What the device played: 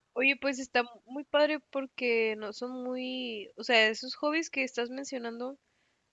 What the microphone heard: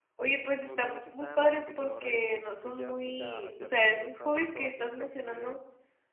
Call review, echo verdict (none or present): present